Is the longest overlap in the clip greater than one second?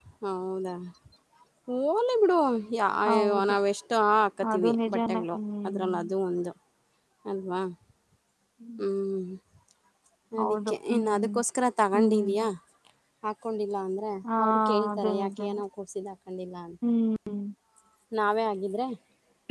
Yes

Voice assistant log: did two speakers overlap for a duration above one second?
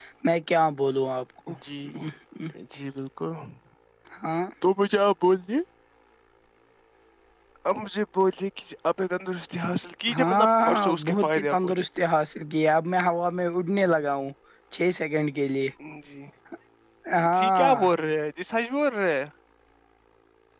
Yes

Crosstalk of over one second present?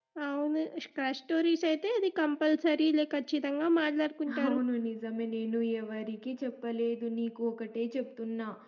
No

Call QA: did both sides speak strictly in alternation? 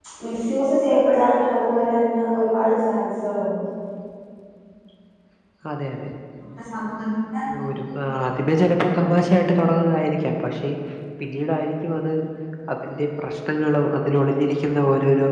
Yes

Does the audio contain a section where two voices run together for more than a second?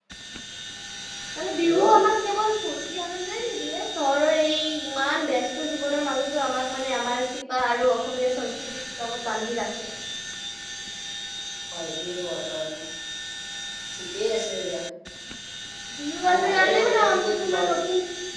Yes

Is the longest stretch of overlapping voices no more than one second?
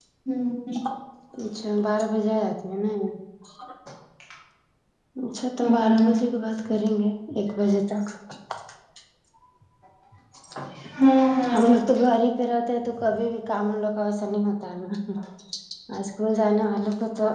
Yes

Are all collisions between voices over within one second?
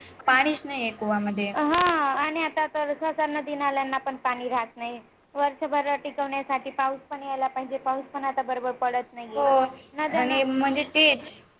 Yes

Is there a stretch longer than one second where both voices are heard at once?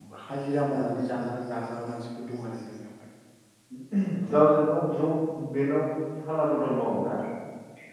No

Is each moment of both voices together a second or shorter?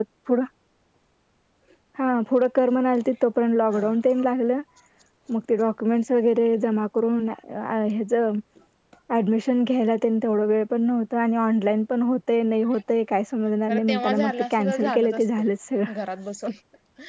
No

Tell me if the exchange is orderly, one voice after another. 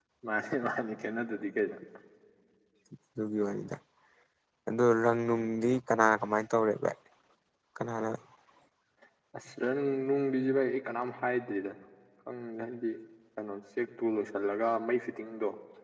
Yes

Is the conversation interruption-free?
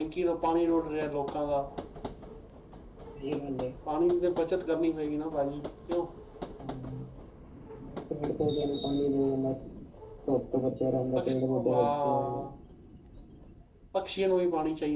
No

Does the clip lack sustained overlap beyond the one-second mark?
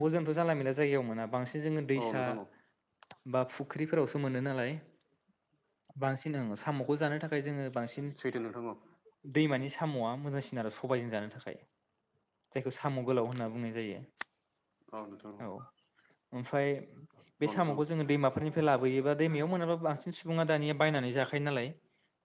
Yes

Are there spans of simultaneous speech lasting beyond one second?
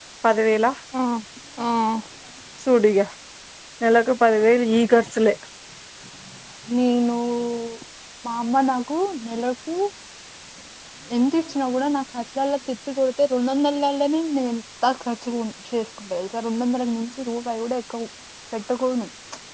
No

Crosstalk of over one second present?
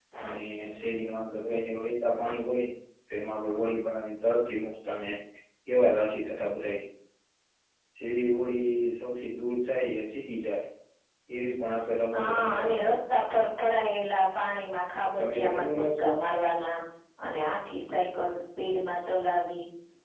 Yes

